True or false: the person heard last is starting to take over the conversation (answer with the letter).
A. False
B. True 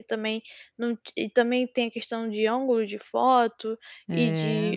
A